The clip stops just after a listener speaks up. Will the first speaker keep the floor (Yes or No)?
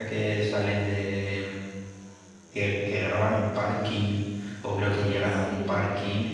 Yes